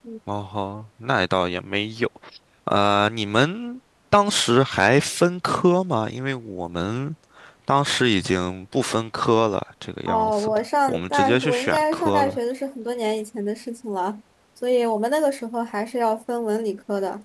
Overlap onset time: 10.1 s

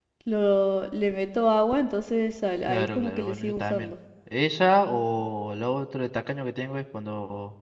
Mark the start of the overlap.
2.7 s

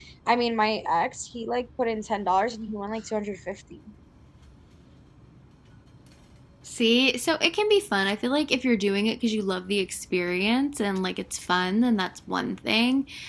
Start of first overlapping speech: none

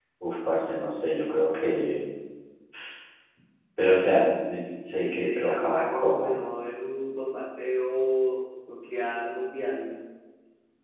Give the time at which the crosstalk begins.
4.9 s

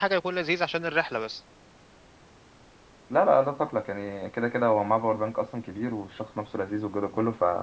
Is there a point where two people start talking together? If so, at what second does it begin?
none

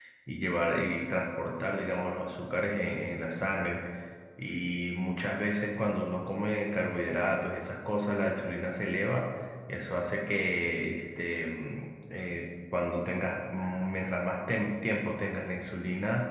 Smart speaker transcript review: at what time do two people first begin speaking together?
none

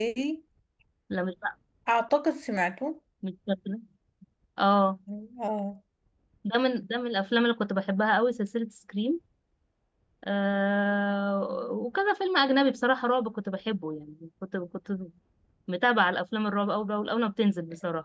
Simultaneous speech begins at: none

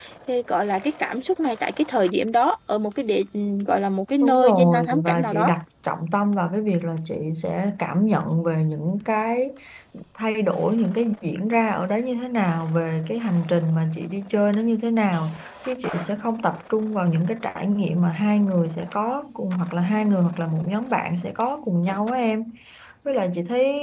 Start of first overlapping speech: 4.2 s

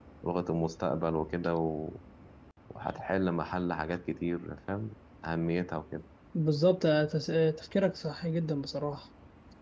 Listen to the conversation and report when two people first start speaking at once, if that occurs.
none

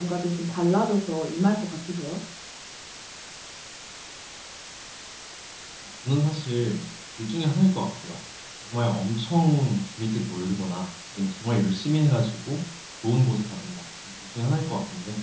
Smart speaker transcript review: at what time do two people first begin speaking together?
none

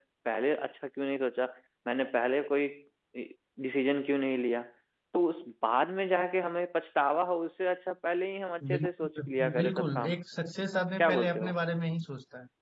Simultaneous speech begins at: 8.7 s

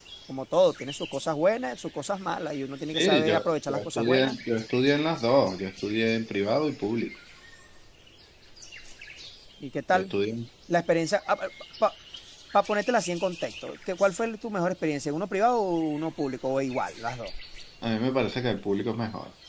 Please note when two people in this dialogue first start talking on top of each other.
2.9 s

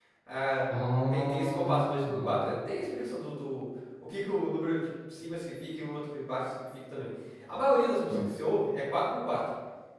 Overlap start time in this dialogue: 1.1 s

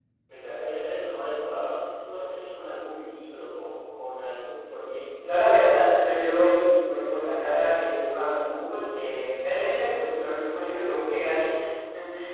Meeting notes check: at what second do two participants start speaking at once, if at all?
5.2 s

